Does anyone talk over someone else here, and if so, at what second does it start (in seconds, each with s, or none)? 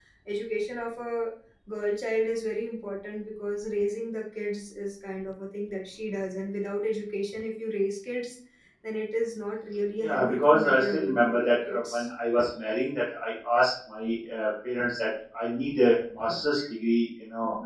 10.0 s